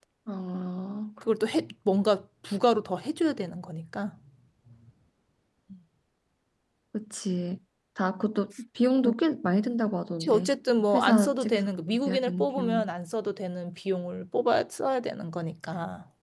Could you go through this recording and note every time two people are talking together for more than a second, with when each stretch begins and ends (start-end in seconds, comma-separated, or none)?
10.9-12.8